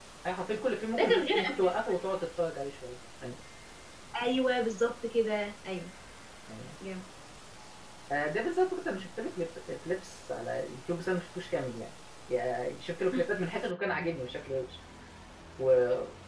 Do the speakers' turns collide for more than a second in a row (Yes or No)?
Yes